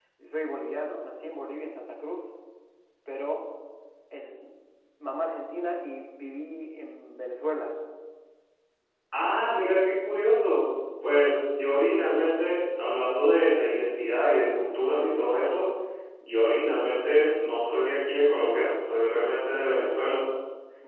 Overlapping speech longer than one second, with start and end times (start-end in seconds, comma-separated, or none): none